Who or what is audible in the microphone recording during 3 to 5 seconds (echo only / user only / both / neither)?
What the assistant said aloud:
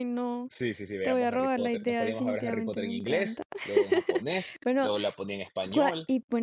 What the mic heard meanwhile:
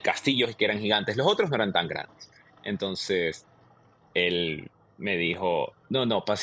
user only